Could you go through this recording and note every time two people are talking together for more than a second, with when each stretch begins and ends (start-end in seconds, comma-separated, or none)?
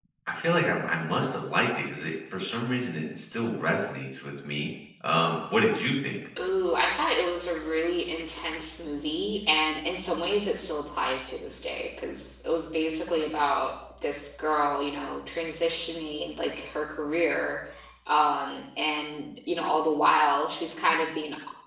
none